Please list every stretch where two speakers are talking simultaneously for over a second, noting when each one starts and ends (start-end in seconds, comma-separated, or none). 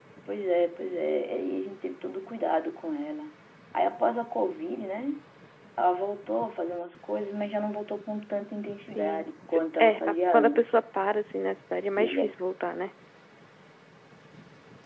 8.8-10.7